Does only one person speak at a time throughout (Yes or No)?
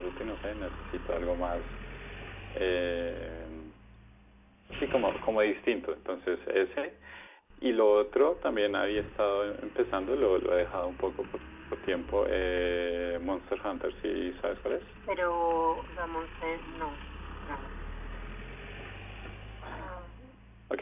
Yes